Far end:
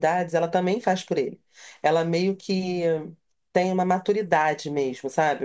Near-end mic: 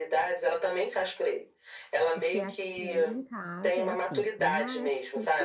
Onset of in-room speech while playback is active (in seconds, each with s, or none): 2.1 s